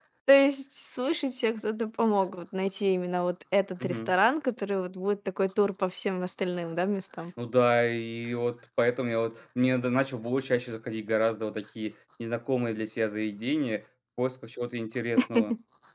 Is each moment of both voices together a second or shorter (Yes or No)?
Yes